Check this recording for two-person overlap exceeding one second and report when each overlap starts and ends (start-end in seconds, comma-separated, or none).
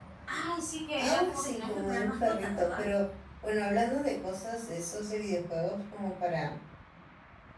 1.0-2.8